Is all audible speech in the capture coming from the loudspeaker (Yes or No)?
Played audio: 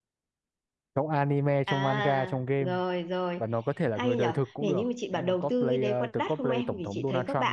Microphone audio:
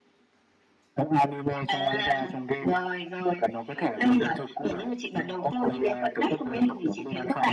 Yes